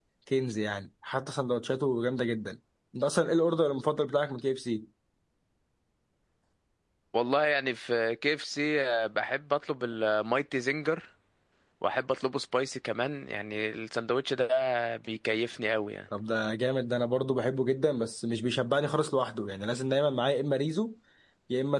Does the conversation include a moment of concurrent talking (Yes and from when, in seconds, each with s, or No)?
No